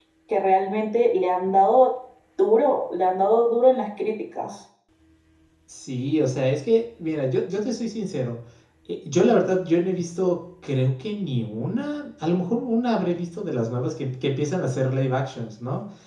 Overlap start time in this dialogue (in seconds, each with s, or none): none